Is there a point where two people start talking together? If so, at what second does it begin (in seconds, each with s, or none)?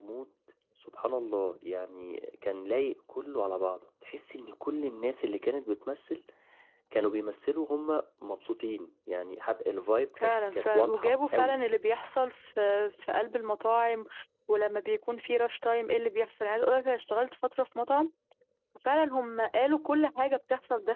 10.2 s